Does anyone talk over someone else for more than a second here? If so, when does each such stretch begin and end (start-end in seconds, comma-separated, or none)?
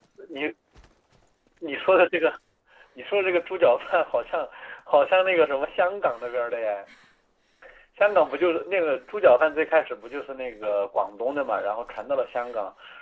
none